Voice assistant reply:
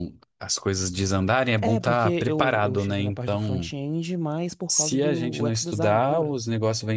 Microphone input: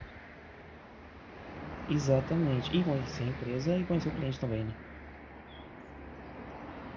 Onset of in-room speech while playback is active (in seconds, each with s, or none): 1.9 s